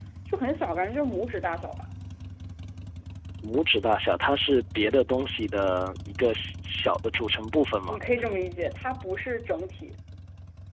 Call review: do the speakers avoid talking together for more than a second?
Yes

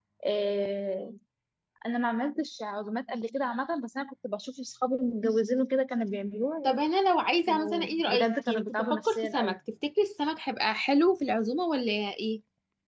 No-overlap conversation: No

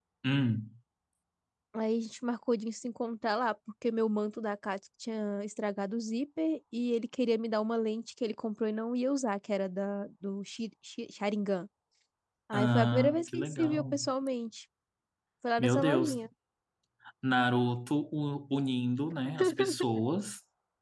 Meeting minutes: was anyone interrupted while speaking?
Yes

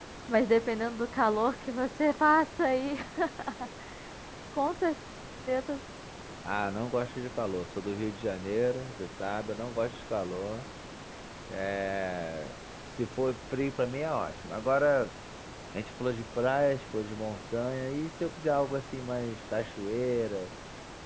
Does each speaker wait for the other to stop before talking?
Yes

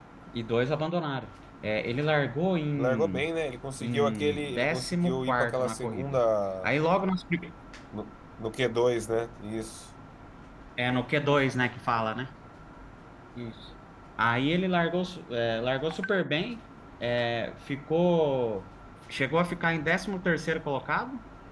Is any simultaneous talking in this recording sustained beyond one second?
Yes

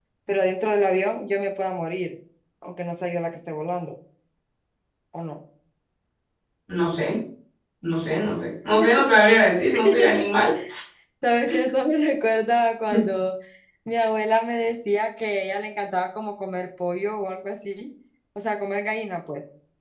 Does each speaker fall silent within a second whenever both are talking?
Yes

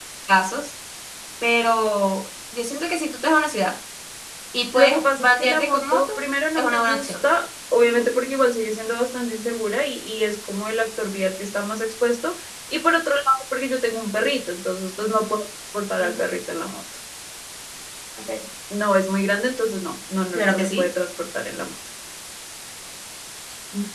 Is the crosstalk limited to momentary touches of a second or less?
No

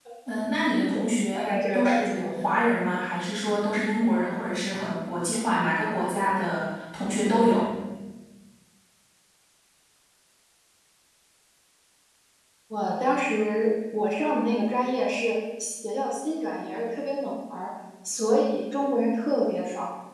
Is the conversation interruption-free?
No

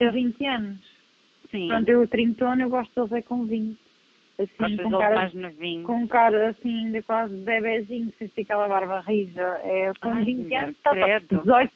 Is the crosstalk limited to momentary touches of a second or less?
No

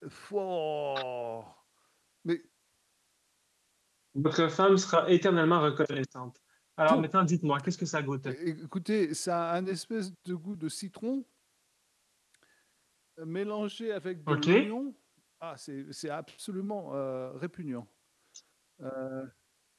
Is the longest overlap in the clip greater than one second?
No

